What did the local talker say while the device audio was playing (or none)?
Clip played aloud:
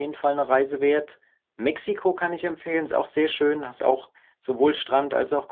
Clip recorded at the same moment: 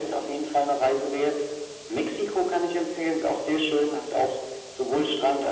none